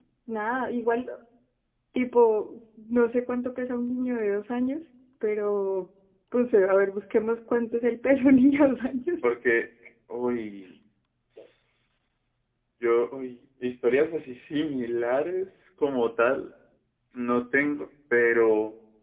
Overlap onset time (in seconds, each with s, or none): none